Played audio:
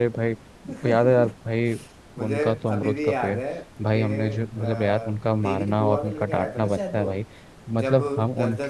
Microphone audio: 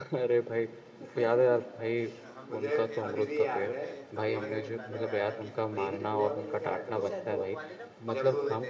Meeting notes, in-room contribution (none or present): present